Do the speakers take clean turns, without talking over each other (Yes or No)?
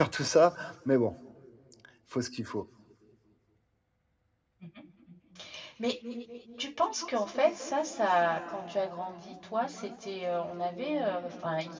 Yes